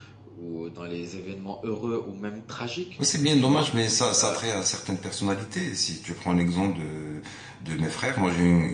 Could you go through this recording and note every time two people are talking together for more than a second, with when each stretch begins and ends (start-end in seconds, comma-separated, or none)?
none